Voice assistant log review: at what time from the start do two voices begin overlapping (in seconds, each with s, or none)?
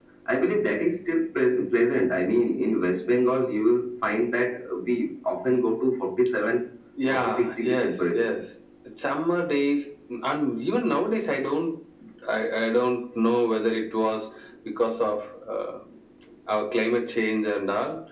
7.1 s